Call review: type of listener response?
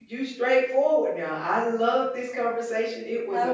taking over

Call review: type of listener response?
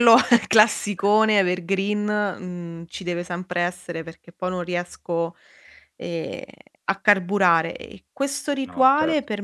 listening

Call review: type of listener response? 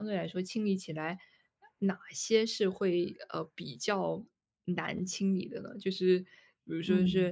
listening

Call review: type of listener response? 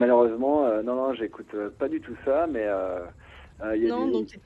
taking over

